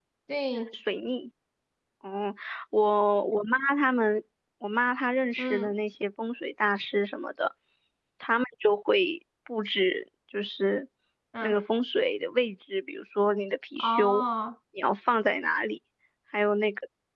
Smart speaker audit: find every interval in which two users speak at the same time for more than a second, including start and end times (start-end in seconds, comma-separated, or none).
none